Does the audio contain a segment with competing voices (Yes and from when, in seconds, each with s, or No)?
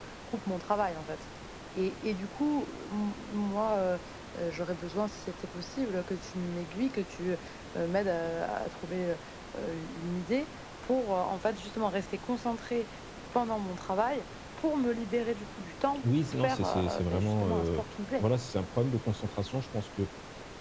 Yes, from 16.2 s